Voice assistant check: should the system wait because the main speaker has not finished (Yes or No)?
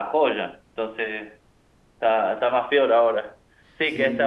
Yes